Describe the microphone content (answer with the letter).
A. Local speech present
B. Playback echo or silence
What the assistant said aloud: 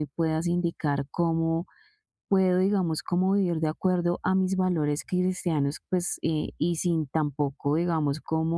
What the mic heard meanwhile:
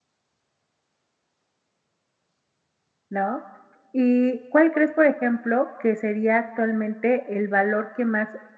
A